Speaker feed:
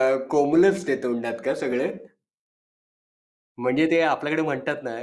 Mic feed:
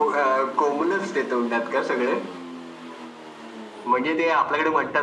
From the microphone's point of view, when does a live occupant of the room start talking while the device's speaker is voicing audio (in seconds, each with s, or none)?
none